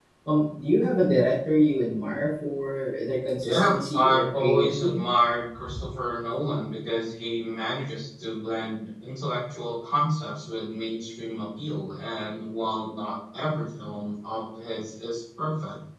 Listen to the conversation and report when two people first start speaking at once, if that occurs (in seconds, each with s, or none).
3.4 s